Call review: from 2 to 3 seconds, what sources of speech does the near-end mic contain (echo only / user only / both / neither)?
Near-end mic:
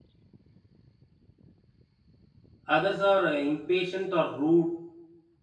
user only